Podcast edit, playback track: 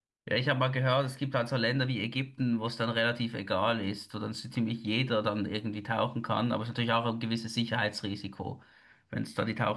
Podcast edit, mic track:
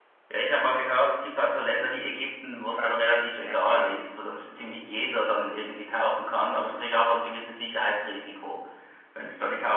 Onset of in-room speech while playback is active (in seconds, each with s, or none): 2.8 s